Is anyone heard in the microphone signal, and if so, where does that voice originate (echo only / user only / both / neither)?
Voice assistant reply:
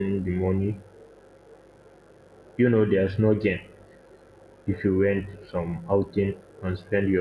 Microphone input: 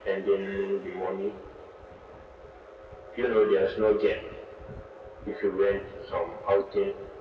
echo only